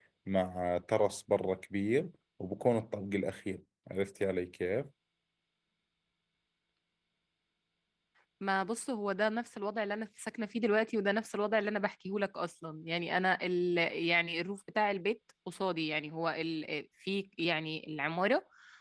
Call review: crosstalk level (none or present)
none